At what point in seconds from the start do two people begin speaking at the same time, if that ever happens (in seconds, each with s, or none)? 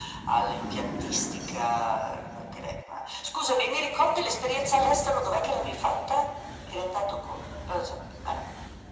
none